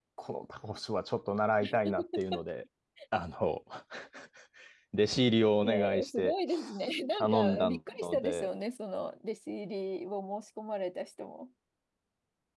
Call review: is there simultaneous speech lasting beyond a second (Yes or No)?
Yes